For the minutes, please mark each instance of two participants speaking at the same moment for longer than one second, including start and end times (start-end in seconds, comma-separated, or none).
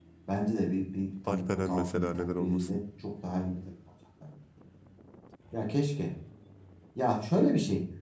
1.3-2.8